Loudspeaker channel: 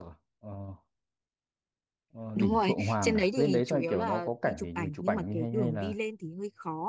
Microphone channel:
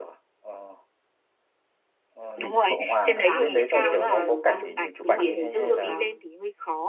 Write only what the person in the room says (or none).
giá nó sẽ cao nhưng mà đồ ăn, đồ biển thì chất lượng lắm,